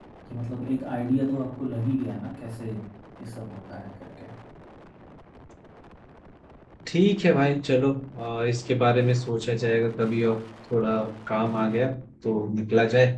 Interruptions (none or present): none